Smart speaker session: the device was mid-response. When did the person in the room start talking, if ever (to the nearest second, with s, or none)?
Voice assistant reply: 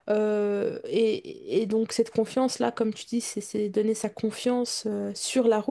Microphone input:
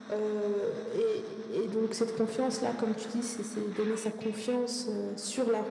none